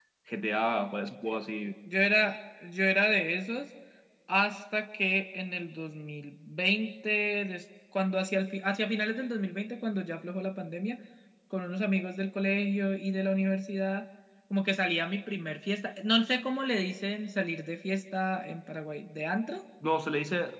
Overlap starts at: none

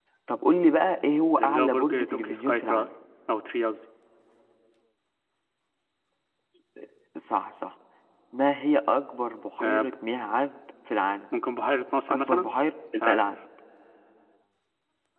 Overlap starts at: 1 s

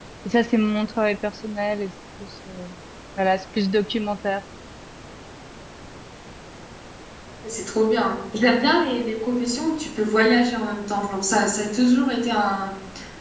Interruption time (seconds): none

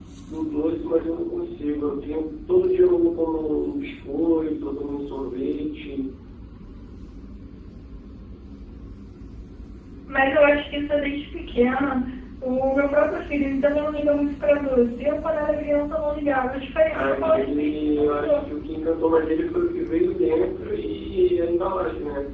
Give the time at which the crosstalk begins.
17 s

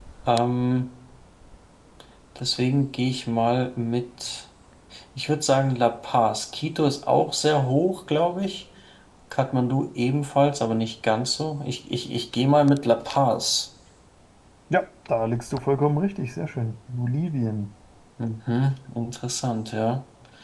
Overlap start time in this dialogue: none

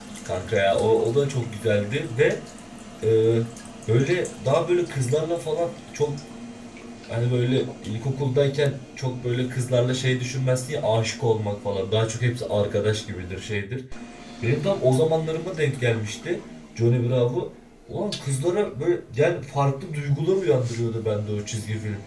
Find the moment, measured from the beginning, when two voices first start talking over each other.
none

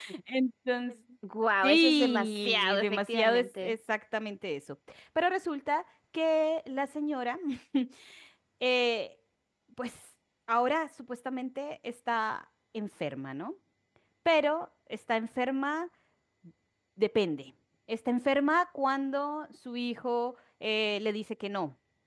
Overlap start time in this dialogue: 2 s

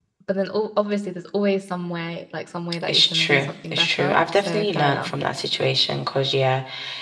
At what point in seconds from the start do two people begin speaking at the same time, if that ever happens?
3 s

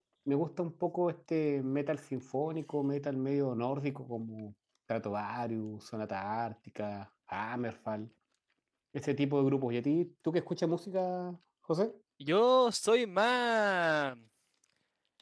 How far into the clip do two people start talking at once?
none

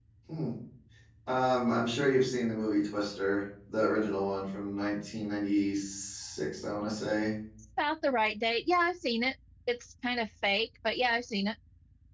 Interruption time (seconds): none

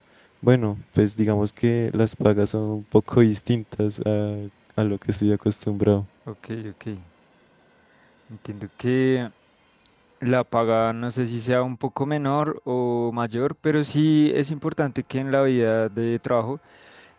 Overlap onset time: none

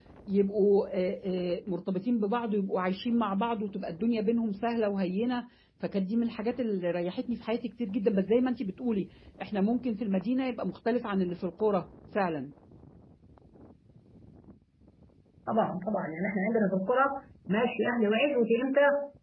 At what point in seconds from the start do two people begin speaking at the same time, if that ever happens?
none

